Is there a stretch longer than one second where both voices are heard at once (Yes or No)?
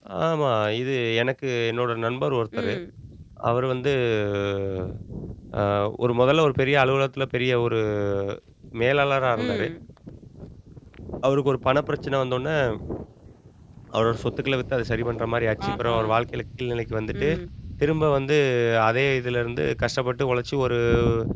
No